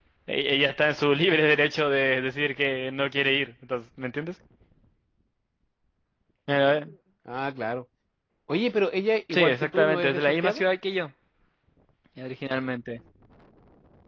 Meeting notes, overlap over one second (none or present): present